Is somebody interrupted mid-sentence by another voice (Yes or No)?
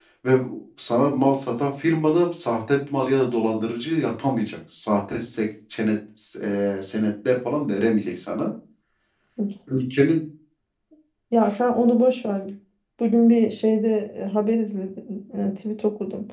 No